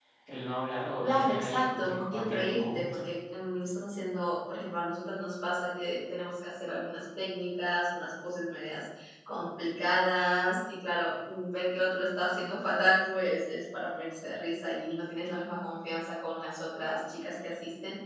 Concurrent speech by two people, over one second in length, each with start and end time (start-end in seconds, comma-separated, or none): 1.0-3.0